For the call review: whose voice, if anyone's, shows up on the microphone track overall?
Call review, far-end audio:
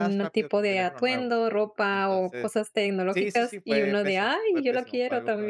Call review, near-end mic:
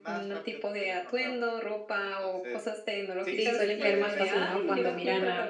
both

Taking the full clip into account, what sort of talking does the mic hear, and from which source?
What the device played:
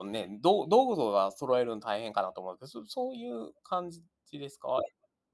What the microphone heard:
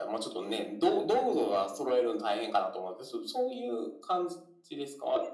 echo only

